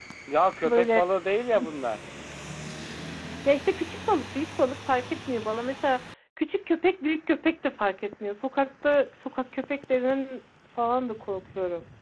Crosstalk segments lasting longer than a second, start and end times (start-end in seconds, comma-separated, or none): none